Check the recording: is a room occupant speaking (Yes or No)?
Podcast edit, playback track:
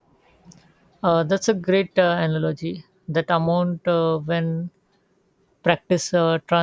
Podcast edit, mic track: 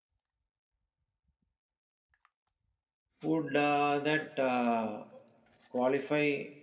Yes